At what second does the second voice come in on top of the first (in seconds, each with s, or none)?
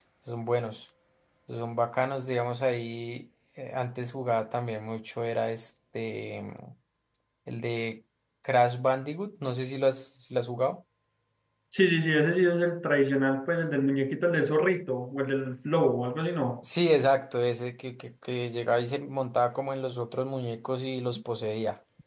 none